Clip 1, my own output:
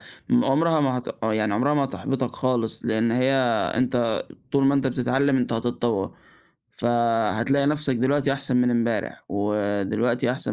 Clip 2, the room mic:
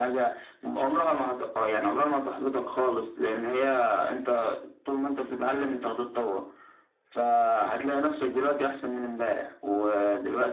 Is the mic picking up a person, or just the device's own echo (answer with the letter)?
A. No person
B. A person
A